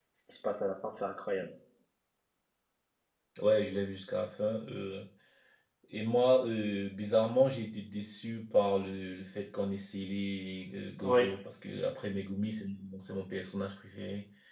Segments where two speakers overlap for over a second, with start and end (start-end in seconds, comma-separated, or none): none